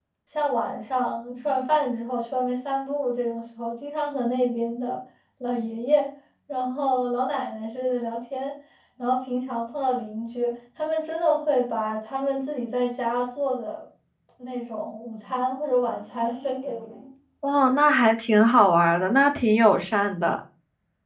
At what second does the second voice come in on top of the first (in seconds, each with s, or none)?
none